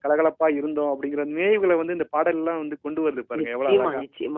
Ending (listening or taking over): taking over